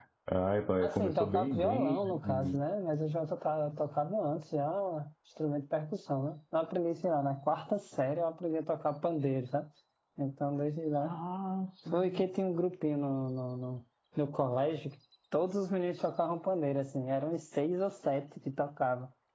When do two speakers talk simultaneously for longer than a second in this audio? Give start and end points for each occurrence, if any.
0.8-2.6

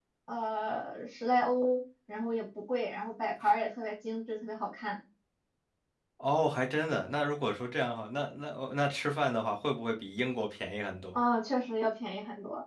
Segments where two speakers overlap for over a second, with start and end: none

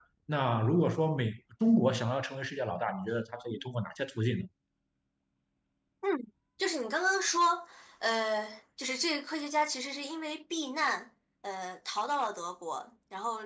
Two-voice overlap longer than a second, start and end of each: none

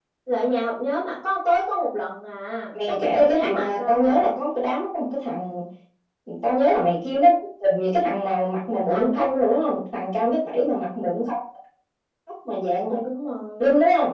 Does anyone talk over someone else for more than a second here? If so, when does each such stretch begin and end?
2.9-4.3

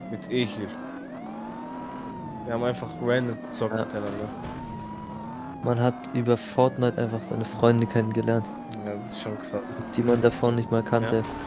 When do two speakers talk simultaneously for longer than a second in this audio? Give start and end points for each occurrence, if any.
none

